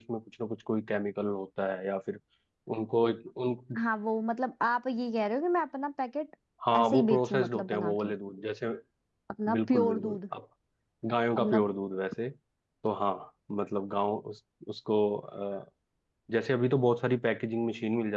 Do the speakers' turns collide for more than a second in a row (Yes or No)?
Yes